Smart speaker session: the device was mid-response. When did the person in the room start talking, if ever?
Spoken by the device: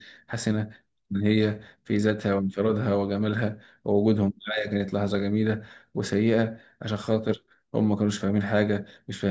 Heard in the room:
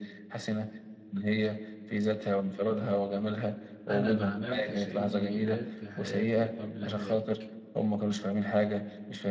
3.9 s

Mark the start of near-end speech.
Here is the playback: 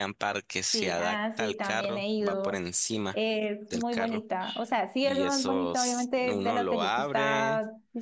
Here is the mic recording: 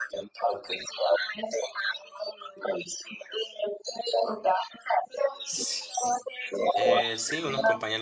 5.4 s

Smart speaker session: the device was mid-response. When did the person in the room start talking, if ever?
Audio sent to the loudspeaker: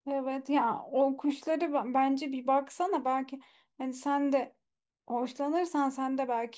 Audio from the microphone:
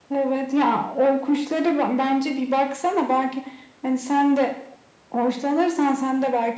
none

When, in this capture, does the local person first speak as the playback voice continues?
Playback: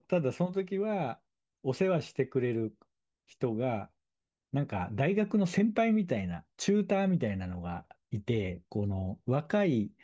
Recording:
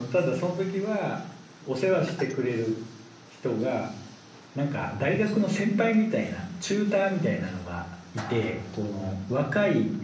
none

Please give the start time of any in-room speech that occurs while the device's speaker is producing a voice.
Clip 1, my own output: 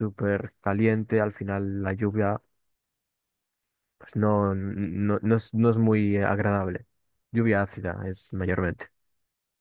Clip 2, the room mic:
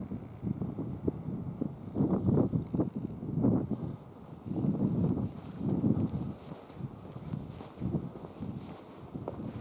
none

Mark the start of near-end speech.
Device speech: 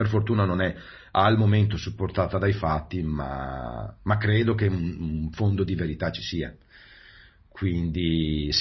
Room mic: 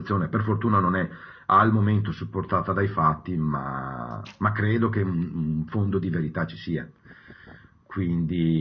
none

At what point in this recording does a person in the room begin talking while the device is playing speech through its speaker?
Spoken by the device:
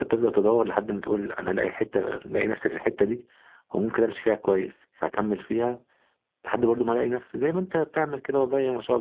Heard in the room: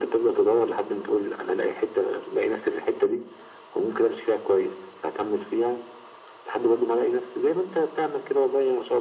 none

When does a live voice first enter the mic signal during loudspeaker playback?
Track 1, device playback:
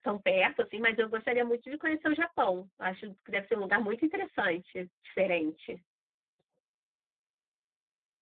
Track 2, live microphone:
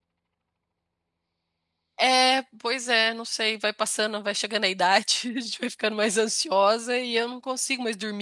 2.0 s

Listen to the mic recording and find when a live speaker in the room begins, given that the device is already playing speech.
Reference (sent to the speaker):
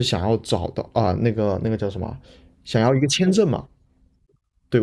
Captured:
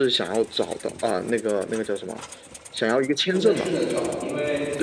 3.3 s

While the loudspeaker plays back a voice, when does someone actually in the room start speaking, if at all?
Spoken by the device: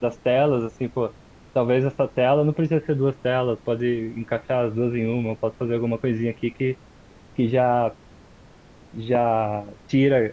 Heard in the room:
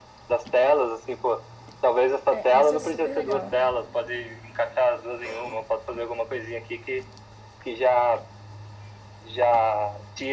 2.3 s

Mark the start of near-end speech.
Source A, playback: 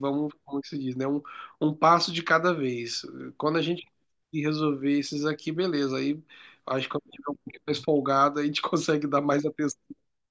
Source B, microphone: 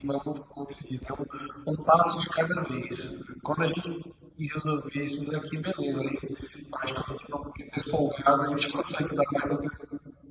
none

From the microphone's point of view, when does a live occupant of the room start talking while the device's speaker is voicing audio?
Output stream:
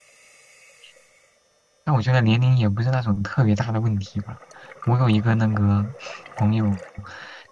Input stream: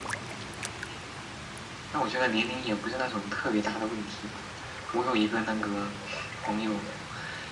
none

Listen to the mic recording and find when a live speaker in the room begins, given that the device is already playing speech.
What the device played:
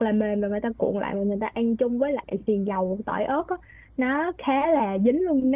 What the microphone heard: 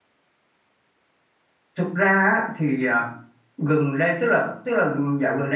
1.8 s

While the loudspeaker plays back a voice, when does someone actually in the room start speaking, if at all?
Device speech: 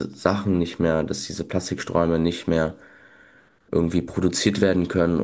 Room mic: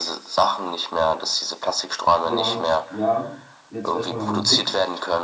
2.2 s

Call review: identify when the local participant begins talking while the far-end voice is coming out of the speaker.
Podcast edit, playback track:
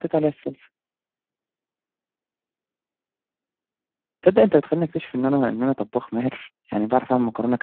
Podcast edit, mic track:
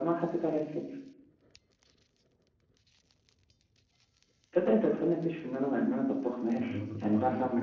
6.6 s

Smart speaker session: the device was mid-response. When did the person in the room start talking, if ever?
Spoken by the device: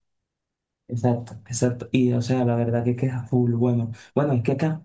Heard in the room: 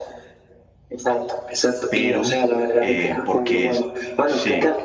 1.9 s

